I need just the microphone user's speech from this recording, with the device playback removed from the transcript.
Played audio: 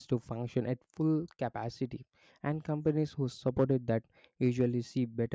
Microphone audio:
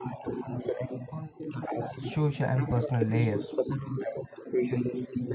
social, and personal layers.

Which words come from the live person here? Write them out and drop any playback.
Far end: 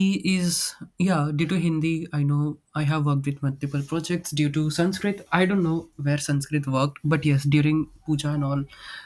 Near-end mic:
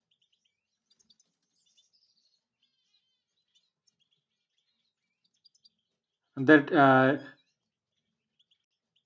That uh,

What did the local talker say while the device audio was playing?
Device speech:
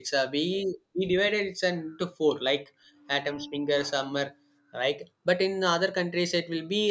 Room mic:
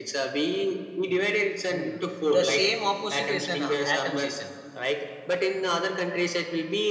right. Hmm. The same opposite is an uh, autumn season.

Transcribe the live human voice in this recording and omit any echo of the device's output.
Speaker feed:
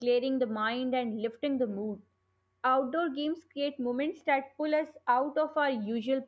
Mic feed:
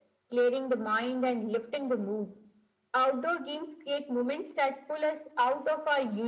none

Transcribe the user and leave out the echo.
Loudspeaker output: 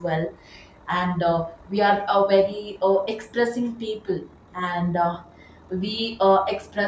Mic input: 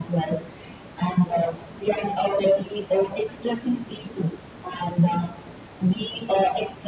none

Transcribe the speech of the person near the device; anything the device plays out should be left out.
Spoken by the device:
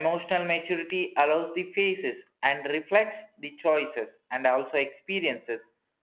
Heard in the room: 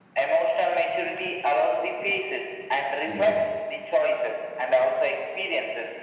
the other.

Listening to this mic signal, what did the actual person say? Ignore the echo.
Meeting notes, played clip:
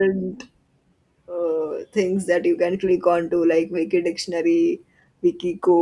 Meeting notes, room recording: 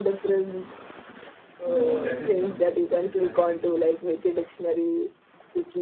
No, that is not proof. That is validation.

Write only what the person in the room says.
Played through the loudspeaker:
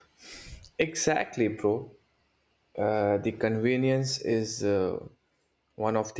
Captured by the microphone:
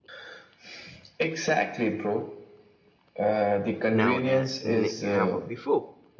now than ever before

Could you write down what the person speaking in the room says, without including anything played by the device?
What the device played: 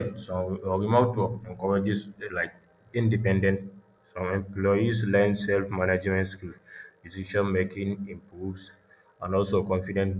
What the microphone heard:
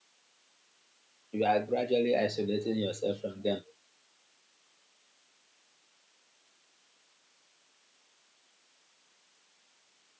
you are gradually isolating yourself from them.

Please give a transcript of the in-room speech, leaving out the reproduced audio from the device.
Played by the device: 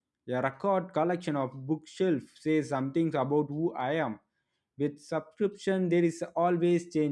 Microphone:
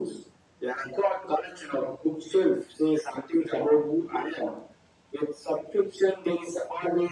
none

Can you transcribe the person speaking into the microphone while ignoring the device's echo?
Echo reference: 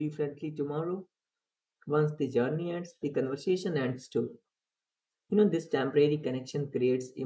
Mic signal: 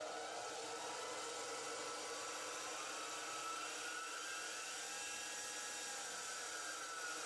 none

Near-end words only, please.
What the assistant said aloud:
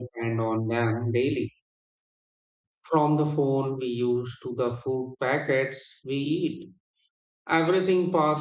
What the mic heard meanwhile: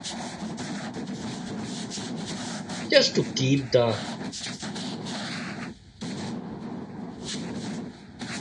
just to keep the

